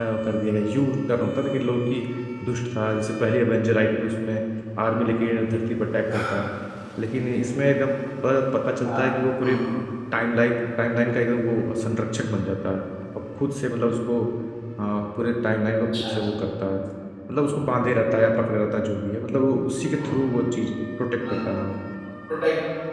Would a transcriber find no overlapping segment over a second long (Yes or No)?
Yes